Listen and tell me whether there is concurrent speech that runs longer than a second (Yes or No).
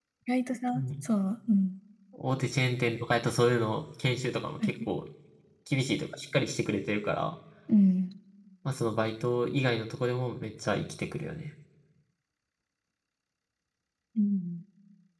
No